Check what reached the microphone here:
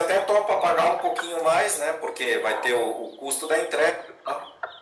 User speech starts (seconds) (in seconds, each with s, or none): none